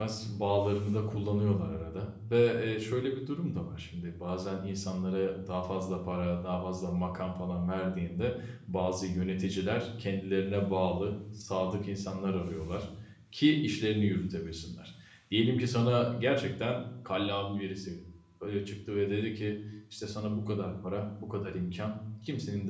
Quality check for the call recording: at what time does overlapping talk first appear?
none

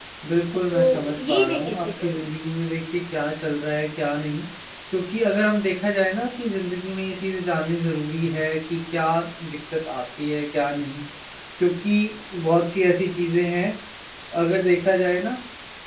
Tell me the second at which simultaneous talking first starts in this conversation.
0.7 s

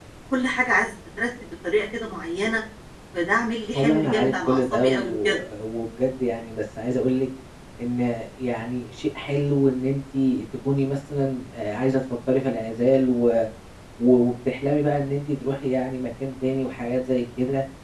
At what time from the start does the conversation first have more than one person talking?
3.7 s

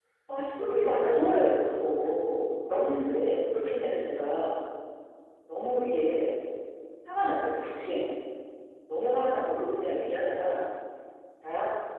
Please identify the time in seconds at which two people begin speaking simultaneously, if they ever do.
0.6 s

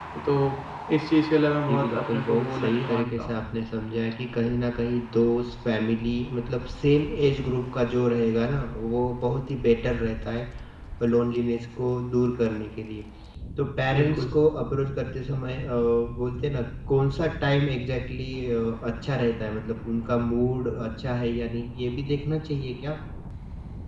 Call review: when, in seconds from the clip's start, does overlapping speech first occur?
1.7 s

